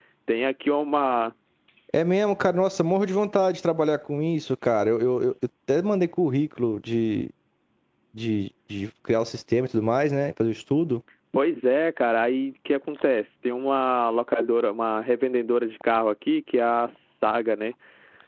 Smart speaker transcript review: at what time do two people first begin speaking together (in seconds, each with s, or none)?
none